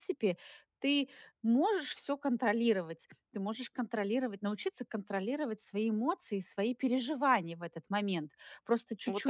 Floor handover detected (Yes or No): Yes